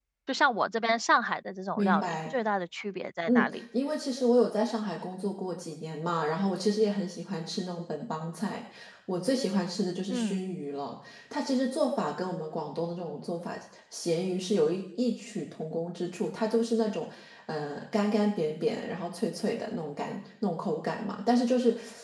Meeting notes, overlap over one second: none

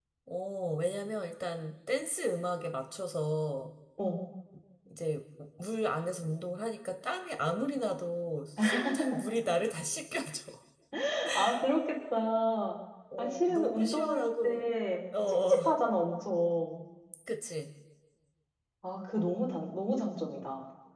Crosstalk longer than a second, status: present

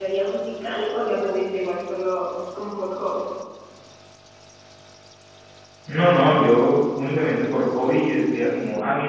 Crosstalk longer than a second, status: none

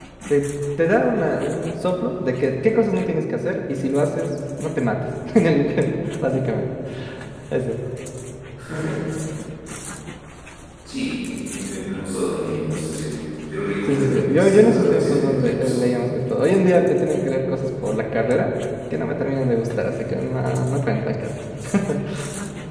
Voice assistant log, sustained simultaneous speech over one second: present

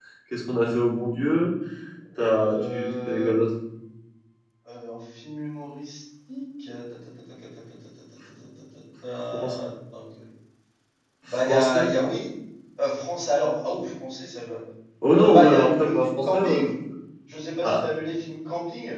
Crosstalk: present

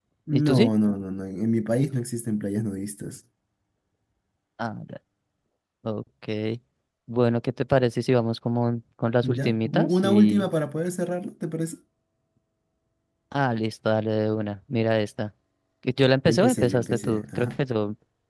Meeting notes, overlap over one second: present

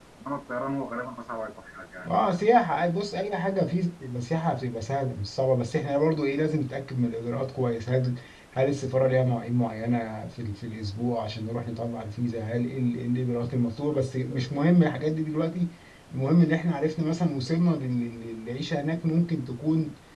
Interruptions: none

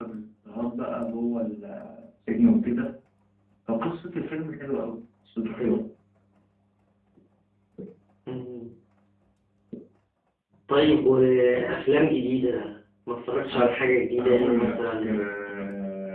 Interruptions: present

